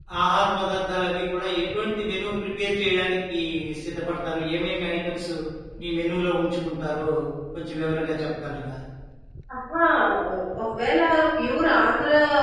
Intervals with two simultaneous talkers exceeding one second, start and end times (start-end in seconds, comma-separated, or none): none